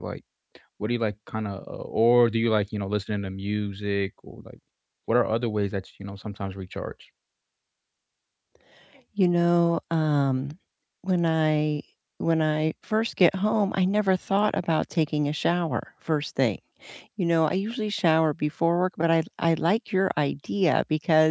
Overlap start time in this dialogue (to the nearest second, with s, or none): none